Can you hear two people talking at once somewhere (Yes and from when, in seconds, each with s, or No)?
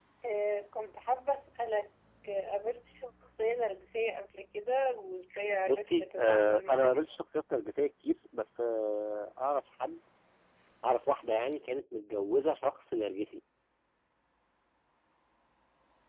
Yes, from 5.7 s